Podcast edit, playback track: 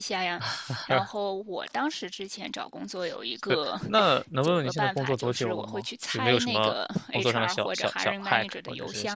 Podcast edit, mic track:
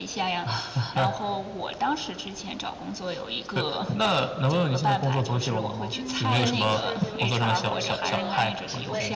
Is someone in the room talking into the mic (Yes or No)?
Yes